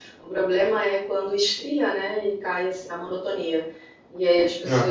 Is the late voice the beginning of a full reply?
No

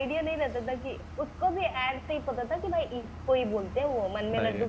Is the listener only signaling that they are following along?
Yes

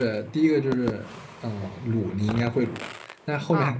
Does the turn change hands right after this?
No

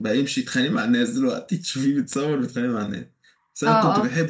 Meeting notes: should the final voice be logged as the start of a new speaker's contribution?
Yes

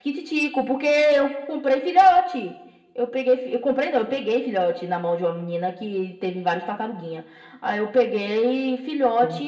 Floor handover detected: Yes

